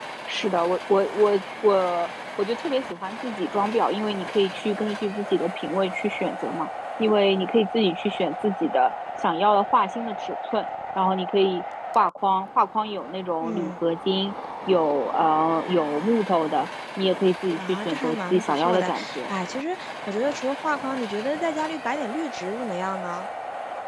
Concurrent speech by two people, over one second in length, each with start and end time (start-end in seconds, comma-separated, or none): 17.6-19.3